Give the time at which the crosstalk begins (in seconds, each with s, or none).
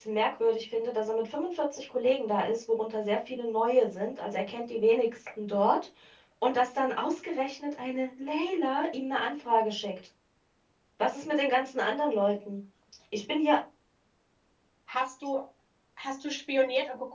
none